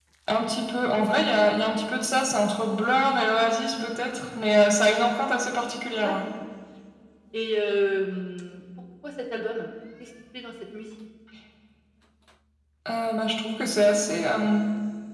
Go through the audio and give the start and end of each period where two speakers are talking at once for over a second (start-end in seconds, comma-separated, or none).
none